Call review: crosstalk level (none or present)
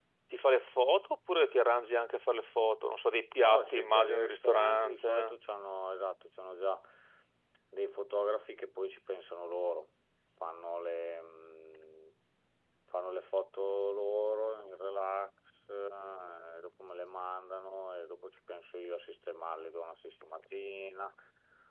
present